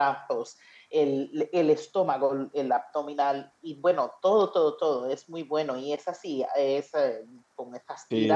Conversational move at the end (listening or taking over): taking over